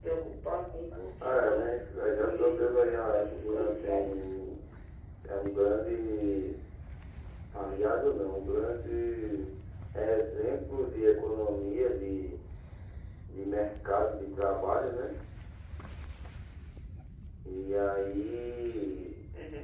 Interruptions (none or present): present